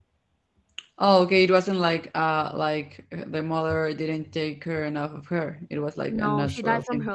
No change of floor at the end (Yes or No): No